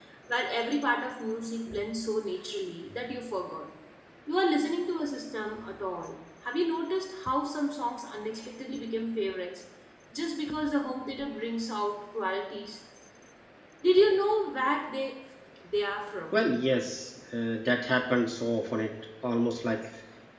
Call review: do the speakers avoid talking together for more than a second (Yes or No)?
Yes